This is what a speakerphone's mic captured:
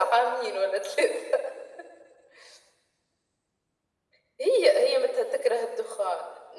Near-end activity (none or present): none